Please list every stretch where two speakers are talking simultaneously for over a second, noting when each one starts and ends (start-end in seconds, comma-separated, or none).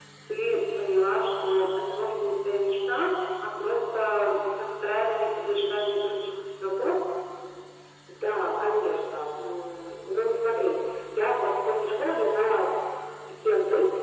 none